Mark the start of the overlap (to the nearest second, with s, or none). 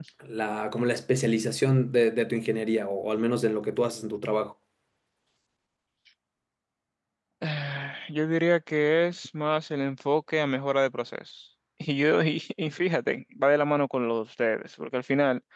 none